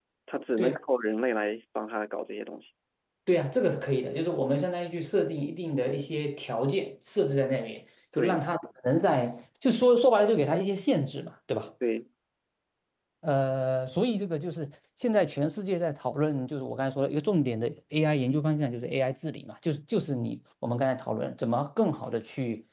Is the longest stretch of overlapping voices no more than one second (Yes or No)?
Yes